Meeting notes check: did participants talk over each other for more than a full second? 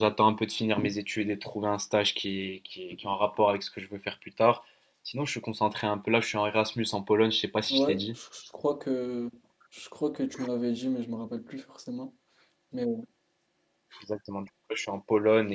No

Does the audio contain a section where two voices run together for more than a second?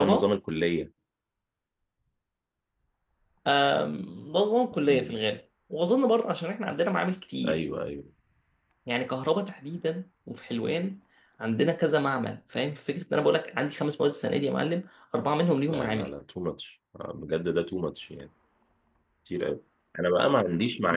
No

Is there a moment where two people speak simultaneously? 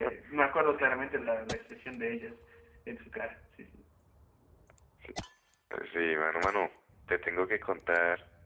No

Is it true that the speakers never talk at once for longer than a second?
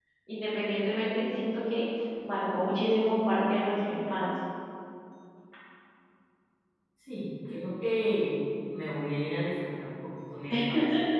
Yes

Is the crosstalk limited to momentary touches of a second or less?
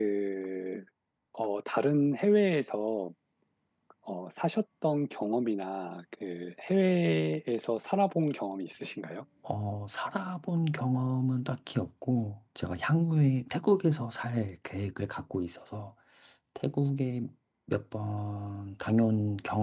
Yes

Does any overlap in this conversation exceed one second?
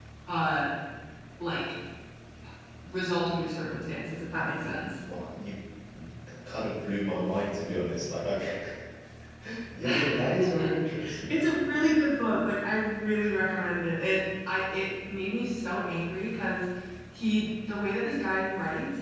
No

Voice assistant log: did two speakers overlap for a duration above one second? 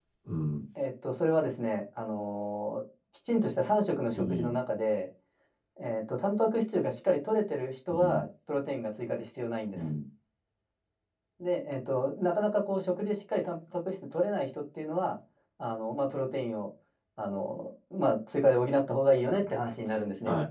No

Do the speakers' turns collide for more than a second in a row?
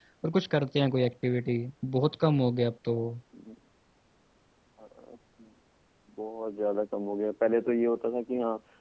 No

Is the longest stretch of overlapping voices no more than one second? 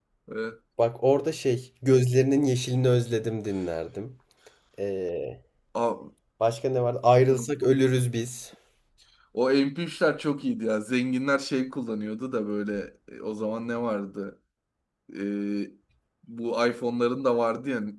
Yes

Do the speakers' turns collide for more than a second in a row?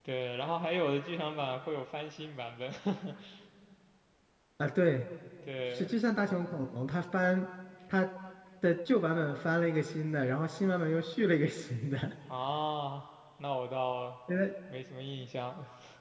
No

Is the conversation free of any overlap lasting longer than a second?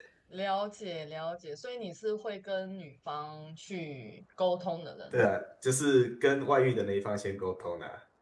Yes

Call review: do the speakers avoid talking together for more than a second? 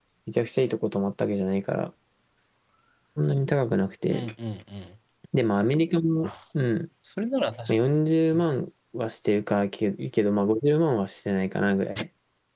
Yes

